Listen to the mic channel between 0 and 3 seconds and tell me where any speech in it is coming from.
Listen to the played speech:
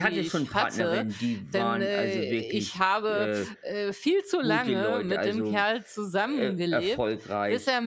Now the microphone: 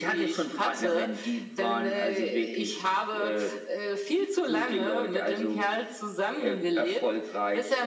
echo only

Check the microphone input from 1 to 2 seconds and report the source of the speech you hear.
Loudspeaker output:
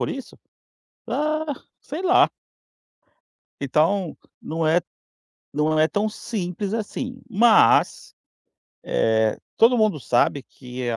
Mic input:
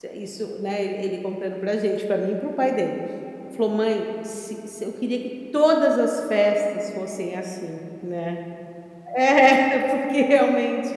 user only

